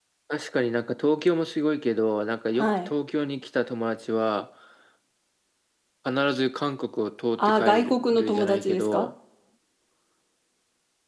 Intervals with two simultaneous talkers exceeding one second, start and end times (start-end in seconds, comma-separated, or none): 7.4-9.1